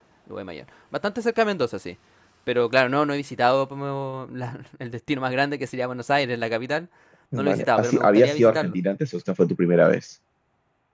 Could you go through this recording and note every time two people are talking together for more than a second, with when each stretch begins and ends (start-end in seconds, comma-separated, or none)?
7.3-8.8